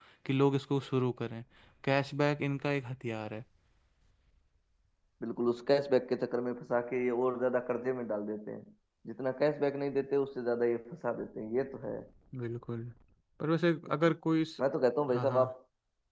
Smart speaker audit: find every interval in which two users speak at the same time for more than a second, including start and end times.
none

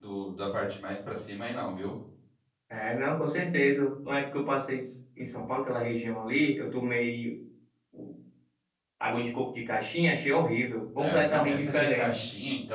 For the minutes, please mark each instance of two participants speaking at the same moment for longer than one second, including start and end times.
11.0-12.2

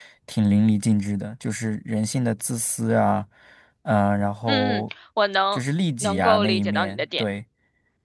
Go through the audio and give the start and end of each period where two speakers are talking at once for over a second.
6.0-7.2

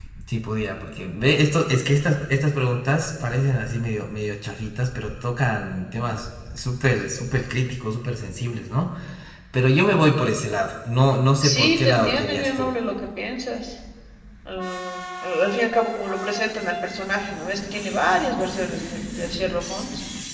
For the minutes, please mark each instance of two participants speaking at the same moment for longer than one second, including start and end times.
11.4-12.7

